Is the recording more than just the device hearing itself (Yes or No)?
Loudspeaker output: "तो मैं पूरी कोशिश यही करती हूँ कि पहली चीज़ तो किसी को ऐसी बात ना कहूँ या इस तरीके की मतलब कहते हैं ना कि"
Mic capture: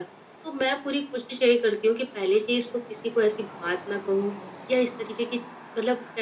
No